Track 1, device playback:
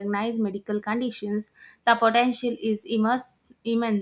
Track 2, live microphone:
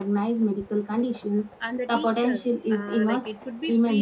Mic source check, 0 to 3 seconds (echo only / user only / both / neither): both